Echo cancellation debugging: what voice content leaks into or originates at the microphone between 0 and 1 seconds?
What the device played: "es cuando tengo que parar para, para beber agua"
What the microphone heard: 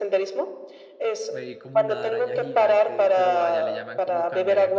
echo only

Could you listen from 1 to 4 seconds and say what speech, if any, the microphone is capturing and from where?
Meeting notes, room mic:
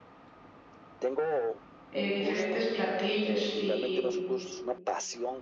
both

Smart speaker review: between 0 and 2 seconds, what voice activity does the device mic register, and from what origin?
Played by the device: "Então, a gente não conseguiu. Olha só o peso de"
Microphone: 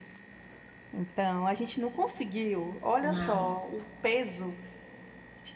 echo only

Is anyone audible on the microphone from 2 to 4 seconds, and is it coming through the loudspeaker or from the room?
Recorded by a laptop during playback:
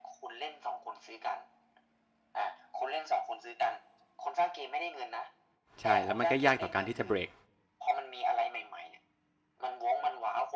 echo only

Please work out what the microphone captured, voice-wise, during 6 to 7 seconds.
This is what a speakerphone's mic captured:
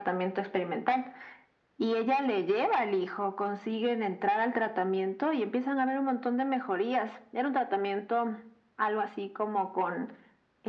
echo only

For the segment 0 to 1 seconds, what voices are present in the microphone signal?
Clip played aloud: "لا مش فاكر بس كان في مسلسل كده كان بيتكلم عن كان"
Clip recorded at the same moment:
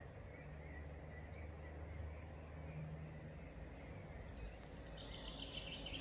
neither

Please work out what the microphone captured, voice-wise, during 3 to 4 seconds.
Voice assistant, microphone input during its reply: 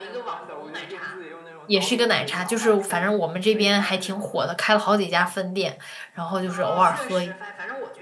both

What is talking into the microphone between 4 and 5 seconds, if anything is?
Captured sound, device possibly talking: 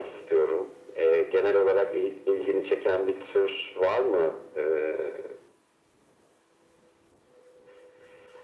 echo only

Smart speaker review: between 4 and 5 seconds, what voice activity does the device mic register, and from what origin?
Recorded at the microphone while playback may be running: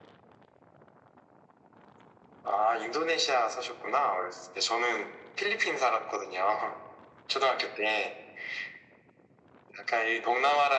echo only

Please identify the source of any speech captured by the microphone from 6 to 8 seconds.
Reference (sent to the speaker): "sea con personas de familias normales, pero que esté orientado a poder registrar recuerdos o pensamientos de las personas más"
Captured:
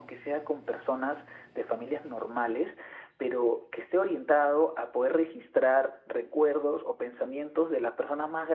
echo only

